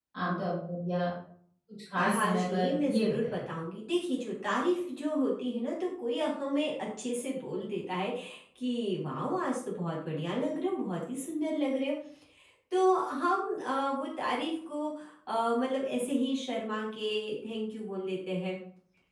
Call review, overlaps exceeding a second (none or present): present